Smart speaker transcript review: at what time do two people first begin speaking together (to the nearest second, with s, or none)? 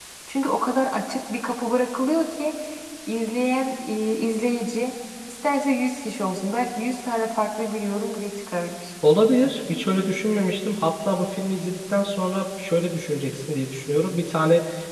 none